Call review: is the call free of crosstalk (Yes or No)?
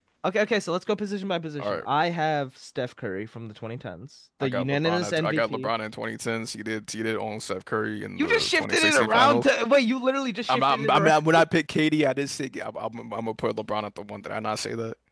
No